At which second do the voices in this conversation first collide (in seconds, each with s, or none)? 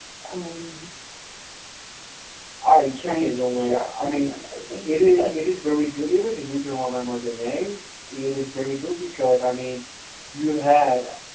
2.9 s